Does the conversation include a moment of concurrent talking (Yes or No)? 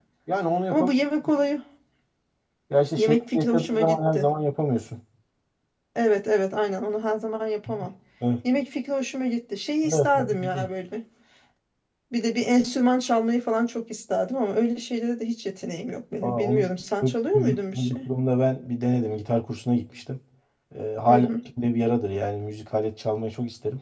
Yes